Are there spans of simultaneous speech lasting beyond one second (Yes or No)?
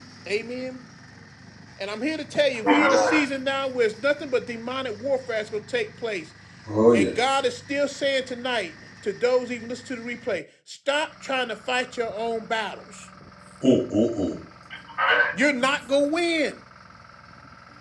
No